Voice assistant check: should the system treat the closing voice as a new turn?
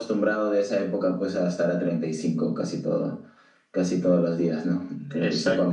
Yes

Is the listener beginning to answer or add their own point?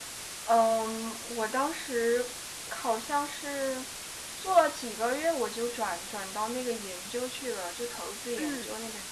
No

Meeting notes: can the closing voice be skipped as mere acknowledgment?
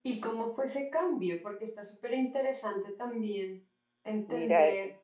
No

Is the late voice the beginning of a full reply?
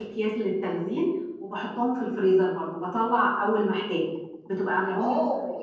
Yes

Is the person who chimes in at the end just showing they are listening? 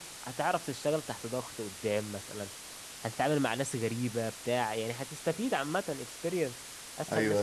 No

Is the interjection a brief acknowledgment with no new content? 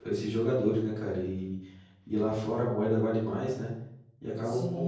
No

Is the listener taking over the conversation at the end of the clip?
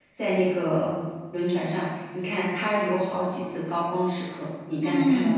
Yes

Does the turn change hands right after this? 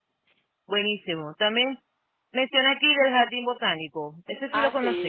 Yes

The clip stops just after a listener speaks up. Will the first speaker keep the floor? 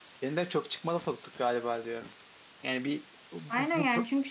No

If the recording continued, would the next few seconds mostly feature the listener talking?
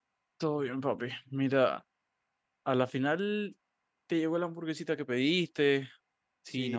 Yes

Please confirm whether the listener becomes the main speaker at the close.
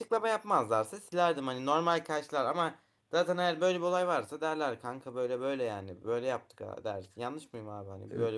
Yes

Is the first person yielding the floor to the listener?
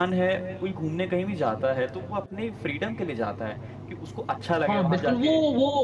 Yes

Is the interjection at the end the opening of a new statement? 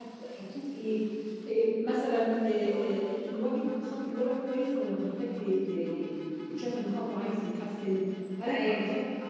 No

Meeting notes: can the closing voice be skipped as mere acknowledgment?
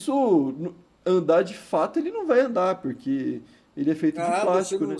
No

